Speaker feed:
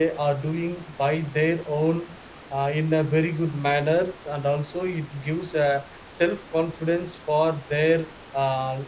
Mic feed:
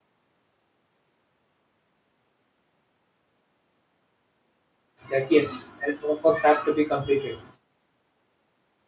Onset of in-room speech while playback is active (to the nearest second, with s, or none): 5 s